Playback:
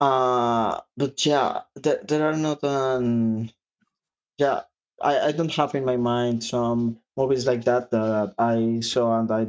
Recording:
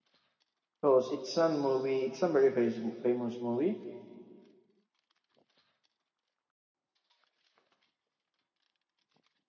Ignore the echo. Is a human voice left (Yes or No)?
Yes